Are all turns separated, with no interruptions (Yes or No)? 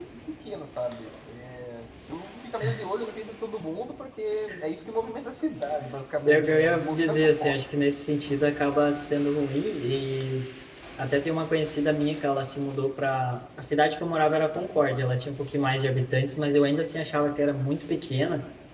No